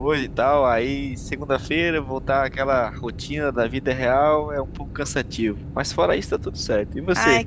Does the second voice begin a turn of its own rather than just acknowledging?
Yes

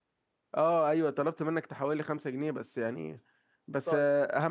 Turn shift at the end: No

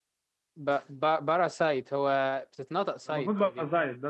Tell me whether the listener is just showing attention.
No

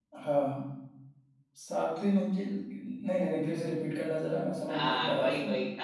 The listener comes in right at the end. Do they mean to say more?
Yes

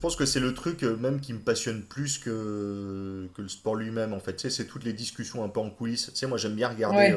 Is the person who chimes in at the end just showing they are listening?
Yes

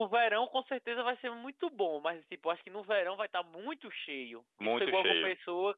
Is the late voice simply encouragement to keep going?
Yes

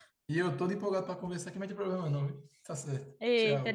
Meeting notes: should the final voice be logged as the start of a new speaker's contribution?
Yes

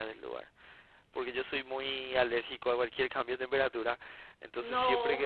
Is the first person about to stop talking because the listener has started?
No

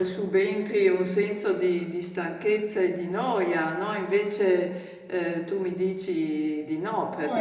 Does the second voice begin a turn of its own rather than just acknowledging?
Yes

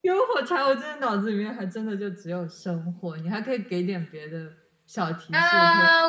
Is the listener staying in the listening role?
No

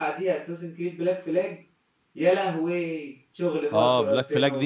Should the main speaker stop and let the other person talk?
Yes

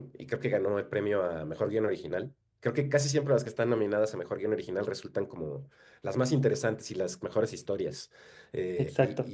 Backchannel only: Yes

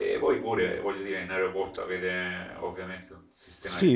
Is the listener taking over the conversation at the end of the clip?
Yes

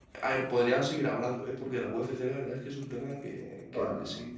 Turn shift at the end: Yes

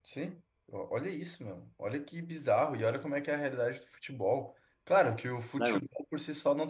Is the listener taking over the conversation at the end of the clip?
No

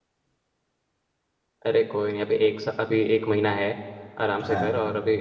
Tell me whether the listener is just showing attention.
Yes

